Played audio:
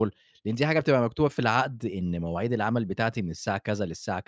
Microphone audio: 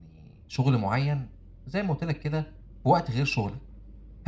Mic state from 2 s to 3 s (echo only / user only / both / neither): user only